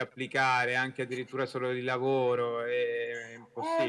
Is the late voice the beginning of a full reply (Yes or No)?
Yes